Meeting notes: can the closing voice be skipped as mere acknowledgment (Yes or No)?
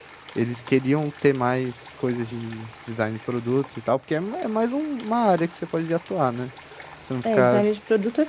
No